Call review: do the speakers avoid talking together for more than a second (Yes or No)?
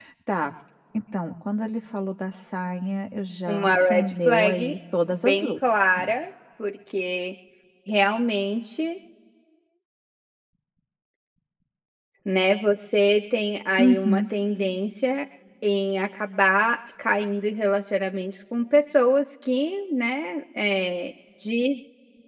No